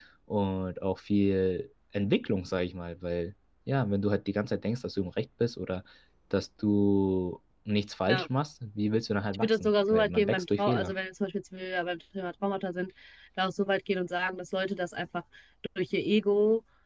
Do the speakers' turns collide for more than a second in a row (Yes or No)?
Yes